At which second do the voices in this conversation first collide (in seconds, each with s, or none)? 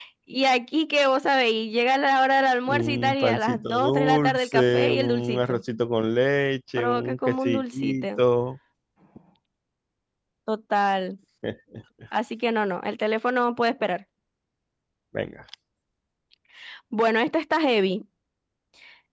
2.7 s